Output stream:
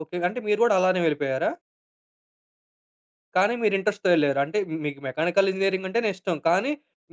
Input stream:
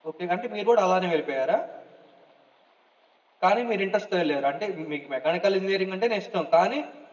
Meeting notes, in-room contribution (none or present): none